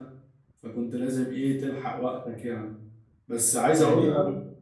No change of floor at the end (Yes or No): No